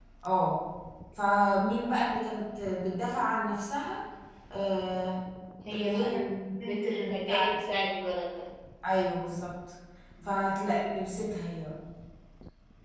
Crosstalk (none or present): present